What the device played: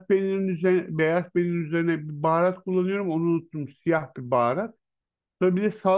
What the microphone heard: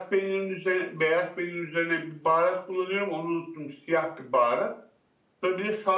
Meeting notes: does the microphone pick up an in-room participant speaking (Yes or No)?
No